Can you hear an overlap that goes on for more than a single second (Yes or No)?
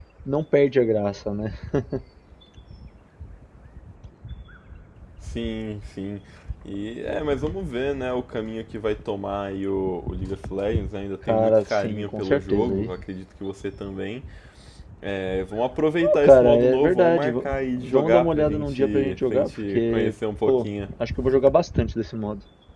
Yes